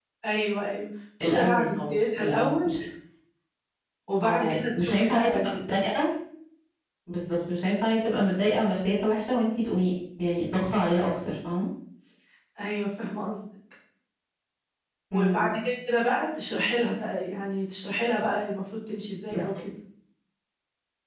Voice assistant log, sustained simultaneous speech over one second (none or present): present